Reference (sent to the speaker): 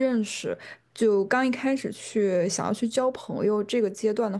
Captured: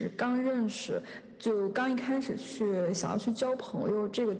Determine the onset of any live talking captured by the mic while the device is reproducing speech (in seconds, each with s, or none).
none